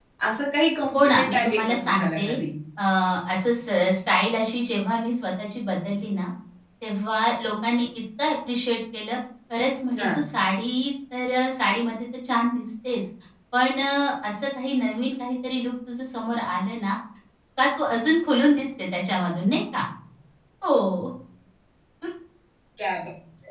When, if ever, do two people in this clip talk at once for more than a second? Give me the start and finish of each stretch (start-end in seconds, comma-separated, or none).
0.9-2.4